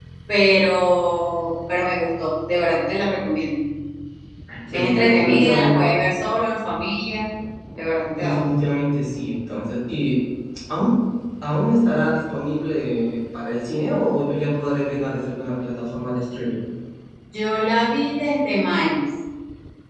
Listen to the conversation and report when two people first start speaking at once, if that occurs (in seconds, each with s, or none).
4.7 s